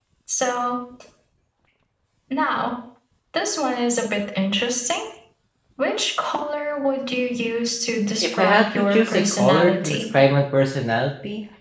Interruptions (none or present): present